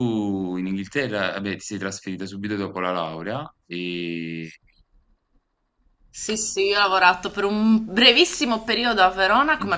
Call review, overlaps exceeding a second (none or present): none